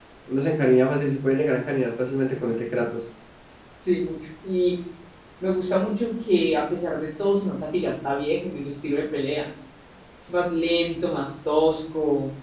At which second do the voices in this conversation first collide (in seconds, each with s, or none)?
none